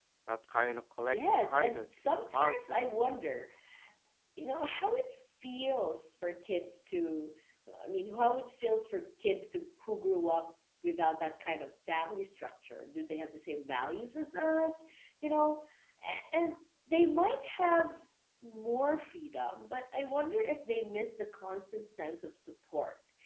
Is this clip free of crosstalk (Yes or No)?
No